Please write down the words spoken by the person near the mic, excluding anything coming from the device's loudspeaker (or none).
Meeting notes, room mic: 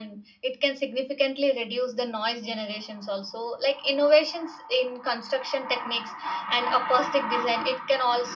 none